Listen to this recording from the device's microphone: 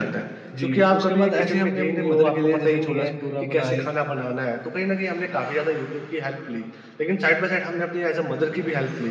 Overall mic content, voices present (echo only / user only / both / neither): both